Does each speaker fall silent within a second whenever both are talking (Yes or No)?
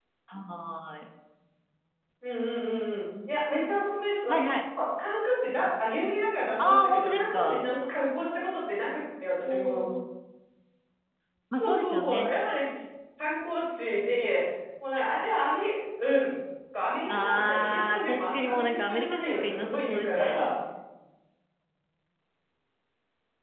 No